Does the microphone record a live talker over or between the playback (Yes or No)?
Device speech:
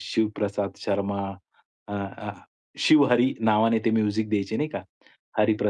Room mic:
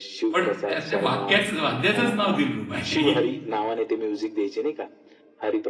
Yes